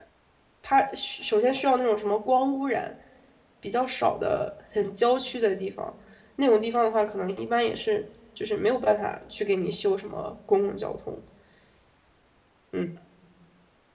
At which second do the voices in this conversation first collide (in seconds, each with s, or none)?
none